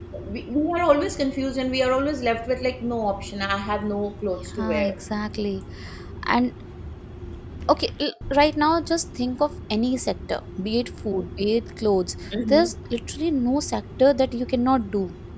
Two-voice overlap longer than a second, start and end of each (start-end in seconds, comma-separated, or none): none